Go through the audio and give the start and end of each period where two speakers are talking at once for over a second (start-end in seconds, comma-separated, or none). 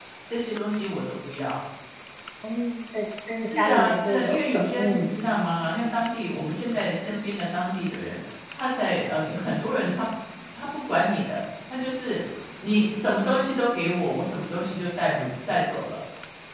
3.6-5.1